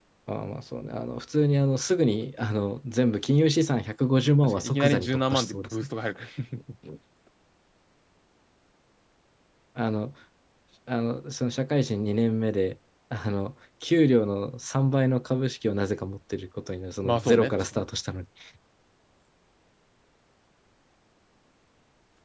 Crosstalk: present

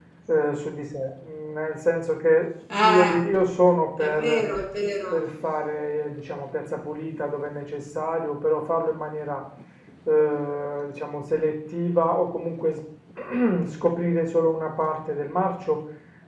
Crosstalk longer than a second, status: none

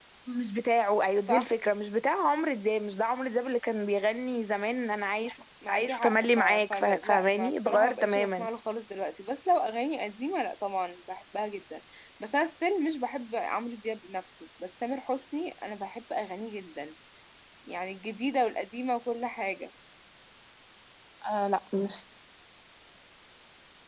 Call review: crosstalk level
present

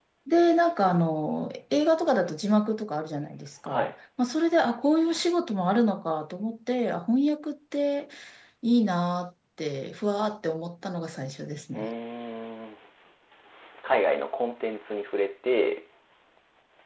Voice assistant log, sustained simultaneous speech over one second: none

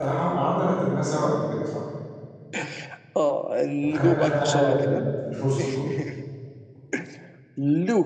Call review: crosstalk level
present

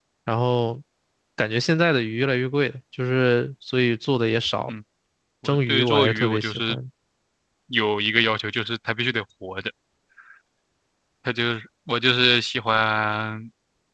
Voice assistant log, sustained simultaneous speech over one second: present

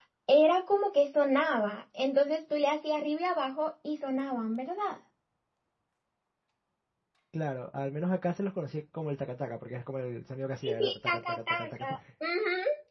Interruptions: present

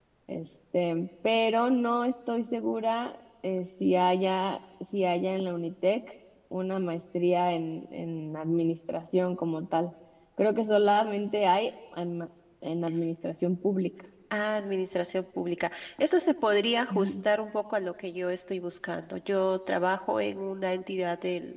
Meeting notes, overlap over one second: none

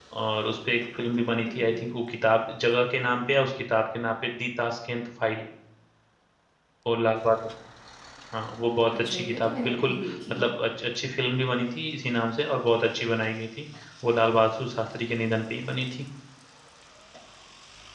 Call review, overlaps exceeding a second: present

